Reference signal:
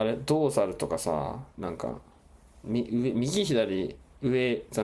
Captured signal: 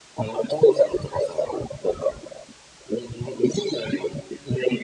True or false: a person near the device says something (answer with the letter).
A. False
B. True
A